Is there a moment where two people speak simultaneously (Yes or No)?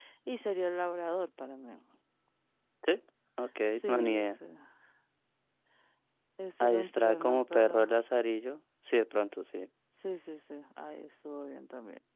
Yes